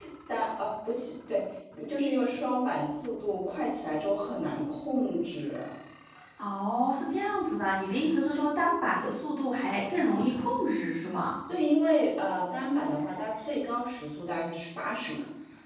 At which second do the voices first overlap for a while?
none

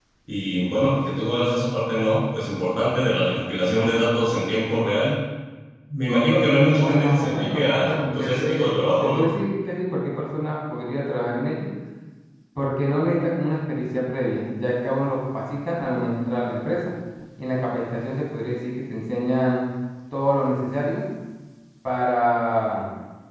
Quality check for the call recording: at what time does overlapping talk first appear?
7 s

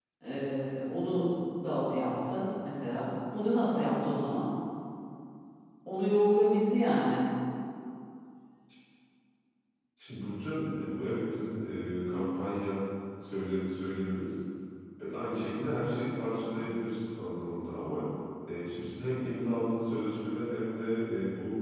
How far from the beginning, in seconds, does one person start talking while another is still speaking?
none

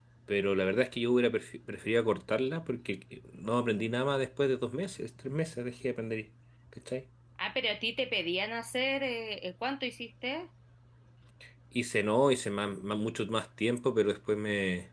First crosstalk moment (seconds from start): none

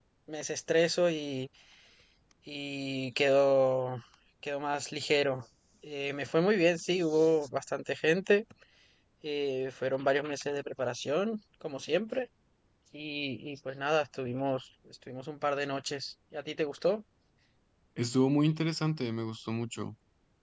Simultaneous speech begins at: none

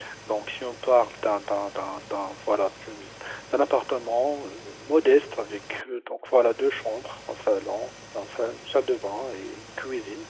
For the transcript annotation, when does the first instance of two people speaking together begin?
none

